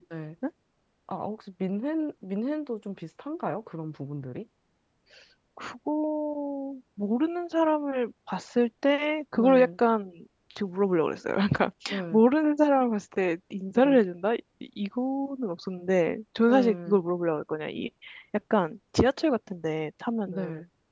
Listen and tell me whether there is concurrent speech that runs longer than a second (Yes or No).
No